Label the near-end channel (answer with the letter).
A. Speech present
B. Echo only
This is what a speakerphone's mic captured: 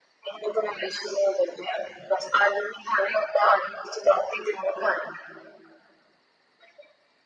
B